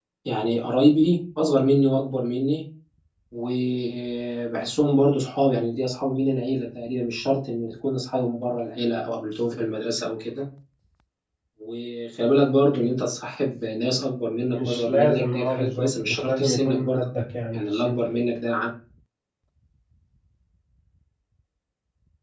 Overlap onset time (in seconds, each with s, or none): 14.5 s